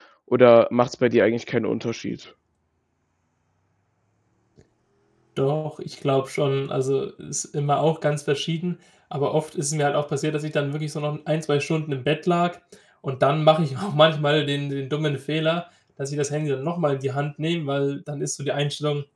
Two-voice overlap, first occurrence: none

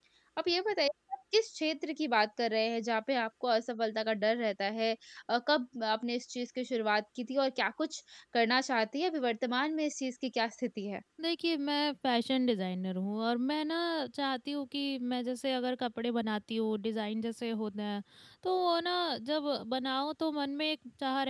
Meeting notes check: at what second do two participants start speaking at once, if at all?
none

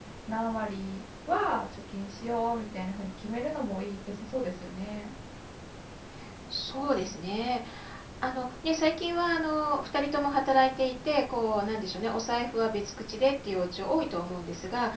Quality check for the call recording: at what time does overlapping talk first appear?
none

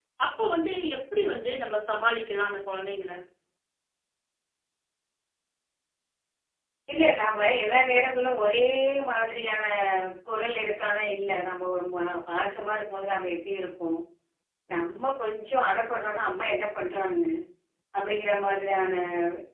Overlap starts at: none

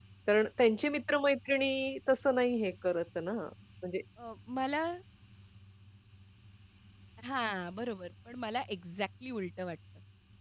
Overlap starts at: none

